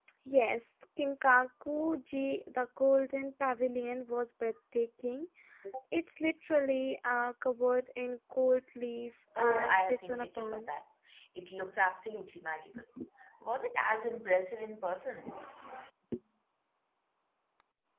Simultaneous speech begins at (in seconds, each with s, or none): 9.4 s